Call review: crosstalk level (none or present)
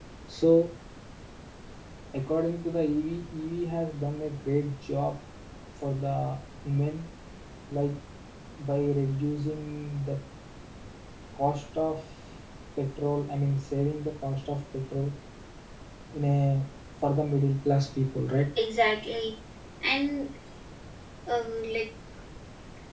none